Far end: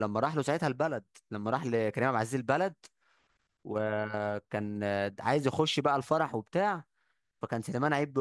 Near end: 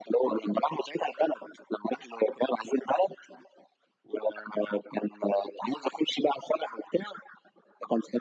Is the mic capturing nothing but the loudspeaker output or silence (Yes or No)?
Yes